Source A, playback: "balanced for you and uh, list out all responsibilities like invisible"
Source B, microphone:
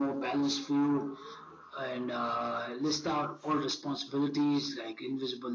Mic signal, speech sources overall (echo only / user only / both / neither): echo only